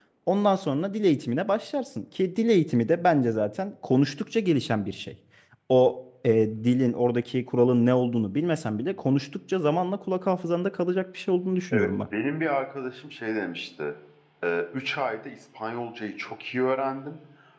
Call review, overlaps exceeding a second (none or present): none